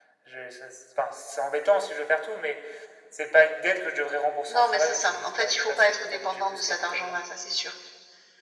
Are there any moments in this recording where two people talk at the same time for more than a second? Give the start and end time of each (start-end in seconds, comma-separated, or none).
4.5-7.2